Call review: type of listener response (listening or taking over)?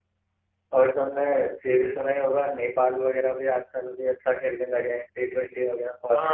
taking over